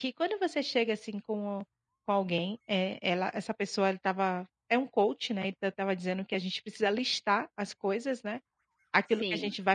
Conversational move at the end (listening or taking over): listening